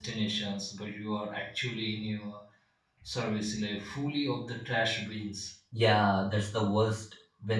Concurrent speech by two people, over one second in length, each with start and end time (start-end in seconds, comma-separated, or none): none